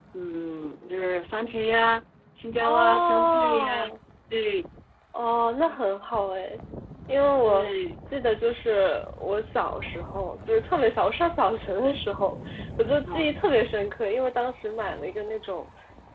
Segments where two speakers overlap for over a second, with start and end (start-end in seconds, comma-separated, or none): 2.7-4.0